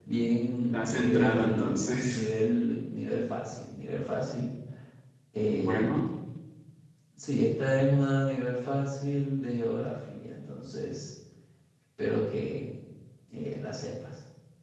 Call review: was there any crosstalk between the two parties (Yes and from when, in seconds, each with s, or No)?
Yes, from 0.7 s